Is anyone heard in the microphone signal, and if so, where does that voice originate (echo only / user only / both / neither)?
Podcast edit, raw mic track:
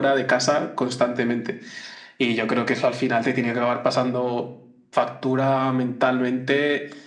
echo only